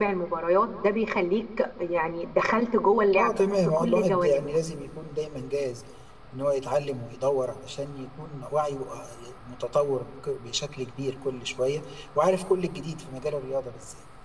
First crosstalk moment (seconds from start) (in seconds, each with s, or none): 3.1 s